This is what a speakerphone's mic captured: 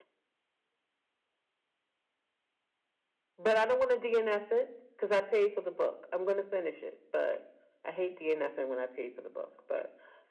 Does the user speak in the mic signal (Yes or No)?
Yes